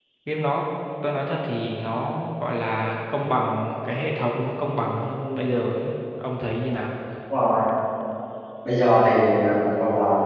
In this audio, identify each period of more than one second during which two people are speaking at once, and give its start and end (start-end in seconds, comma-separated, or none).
none